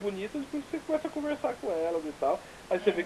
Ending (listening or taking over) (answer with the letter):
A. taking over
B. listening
B